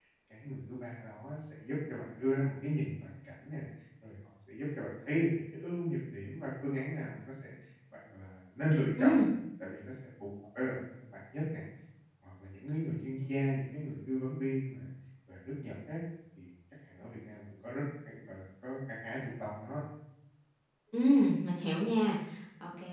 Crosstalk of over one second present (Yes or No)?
No